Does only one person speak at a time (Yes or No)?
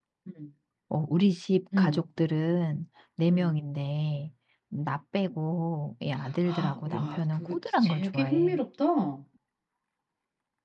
No